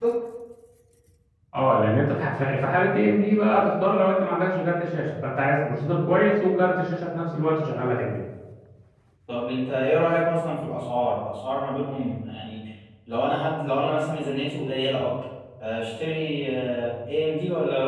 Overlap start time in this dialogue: none

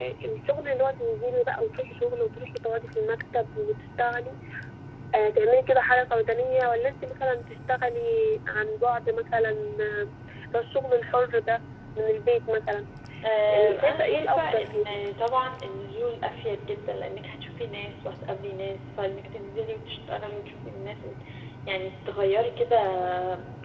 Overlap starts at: 13.5 s

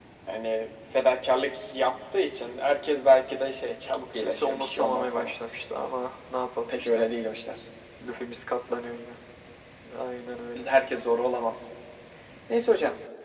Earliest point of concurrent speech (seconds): 4.1 s

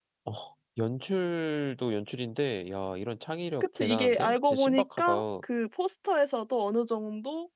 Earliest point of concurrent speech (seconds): 3.6 s

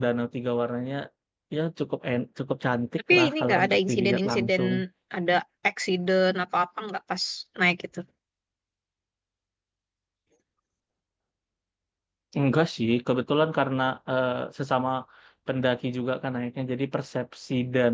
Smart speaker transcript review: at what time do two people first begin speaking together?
3.1 s

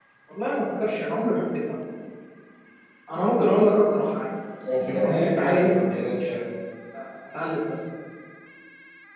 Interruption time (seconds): 4.7 s

